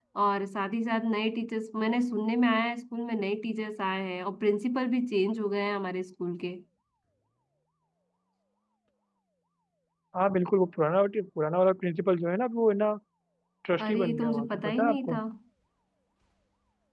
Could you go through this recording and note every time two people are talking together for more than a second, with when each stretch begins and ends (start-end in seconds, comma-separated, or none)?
13.8-15.2